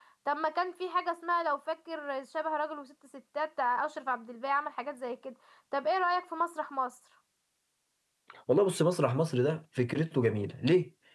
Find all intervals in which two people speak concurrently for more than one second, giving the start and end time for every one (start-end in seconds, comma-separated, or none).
none